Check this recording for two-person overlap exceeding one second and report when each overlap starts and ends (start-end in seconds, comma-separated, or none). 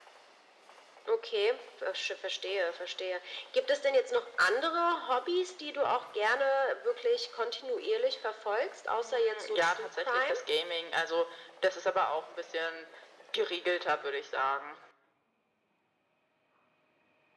9.0-10.4